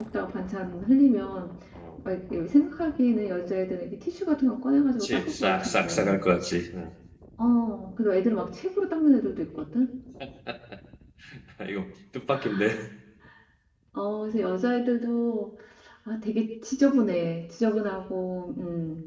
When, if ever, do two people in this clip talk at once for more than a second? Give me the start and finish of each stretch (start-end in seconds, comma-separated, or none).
4.9-6.2